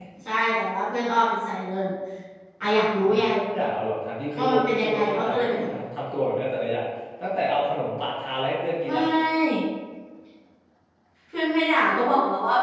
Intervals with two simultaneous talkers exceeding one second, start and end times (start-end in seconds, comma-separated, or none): 4.4-5.6